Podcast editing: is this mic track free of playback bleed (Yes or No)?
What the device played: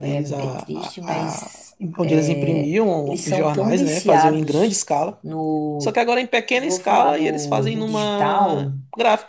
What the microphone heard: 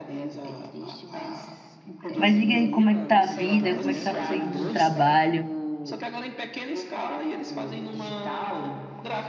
No